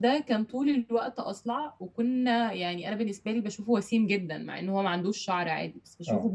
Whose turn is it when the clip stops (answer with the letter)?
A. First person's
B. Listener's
A